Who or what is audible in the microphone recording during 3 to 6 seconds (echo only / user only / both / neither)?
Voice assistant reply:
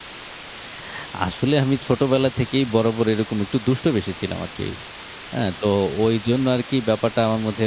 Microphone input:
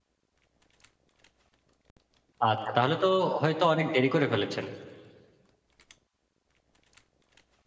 user only